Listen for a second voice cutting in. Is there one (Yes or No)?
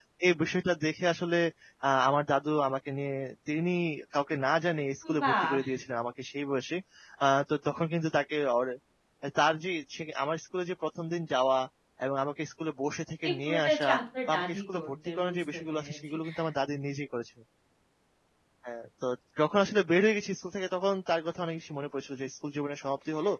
Yes